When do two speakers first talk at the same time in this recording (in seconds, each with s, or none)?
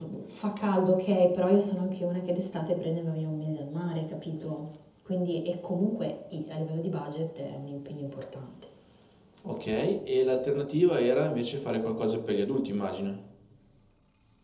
none